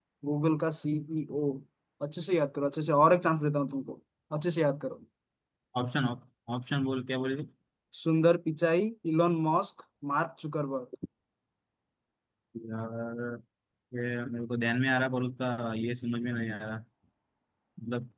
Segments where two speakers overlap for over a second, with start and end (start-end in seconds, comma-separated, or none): none